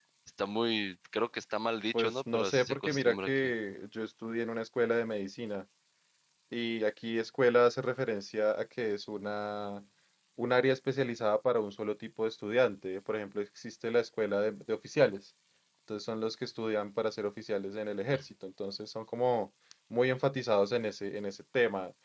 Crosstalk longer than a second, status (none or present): present